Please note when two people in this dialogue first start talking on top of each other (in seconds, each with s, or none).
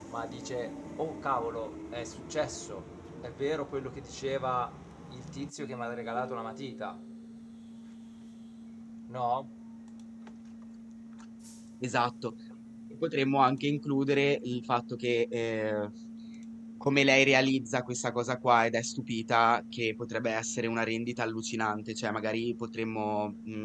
none